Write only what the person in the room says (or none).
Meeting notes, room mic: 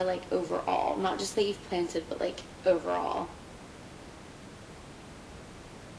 none